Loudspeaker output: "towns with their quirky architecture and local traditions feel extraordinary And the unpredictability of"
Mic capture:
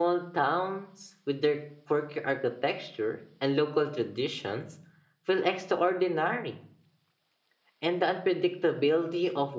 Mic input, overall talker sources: echo only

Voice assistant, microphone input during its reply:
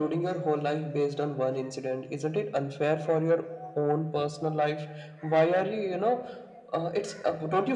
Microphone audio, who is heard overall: echo only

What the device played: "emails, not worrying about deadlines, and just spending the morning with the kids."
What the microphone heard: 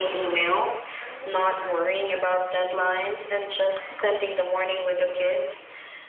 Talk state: echo only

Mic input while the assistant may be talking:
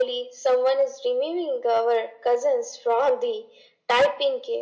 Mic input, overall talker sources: echo only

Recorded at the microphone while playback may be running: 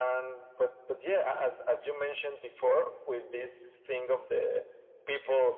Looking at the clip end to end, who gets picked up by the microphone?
echo only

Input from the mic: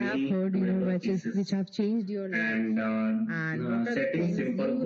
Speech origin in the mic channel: echo only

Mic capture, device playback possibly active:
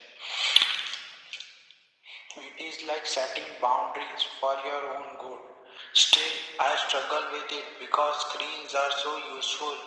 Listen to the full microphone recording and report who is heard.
echo only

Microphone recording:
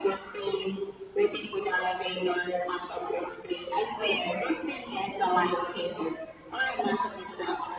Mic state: echo only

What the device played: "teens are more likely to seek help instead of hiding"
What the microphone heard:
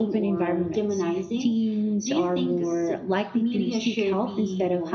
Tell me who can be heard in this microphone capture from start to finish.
both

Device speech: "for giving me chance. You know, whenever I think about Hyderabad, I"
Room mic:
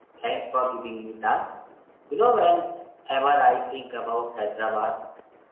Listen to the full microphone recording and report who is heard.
echo only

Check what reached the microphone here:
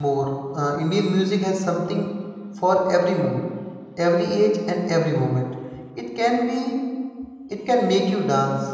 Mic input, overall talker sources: user only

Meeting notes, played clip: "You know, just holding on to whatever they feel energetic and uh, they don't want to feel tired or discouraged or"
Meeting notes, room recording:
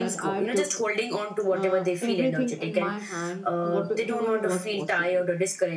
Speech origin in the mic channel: both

